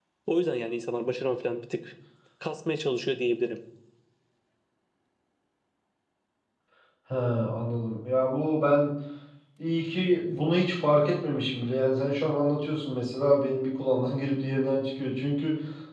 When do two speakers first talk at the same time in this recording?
none

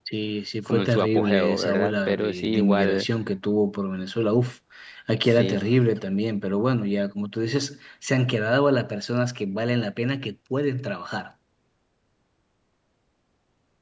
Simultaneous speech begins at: 0.7 s

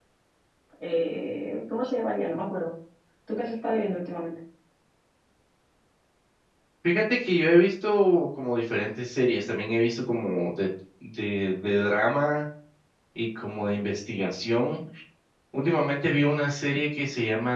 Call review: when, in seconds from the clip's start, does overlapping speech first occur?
none

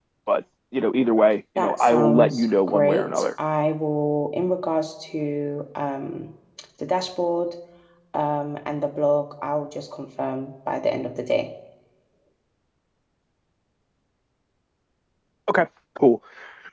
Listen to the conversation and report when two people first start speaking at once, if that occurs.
1.6 s

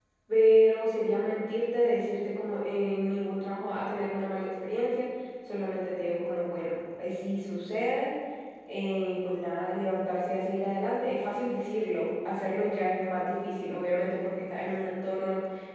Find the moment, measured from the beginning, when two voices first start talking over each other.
none

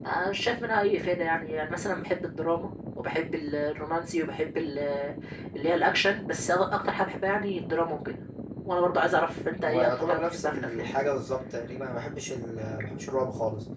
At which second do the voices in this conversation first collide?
9.6 s

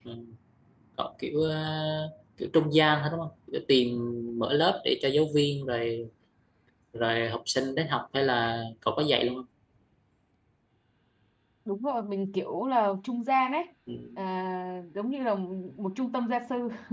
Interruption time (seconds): none

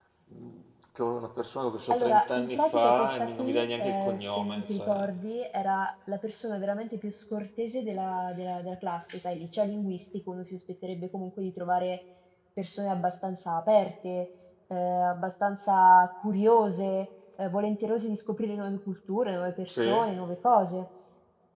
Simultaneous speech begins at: 1.9 s

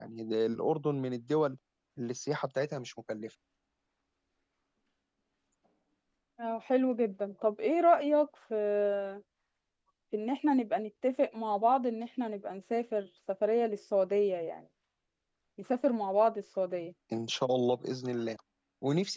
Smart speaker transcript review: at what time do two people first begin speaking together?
none

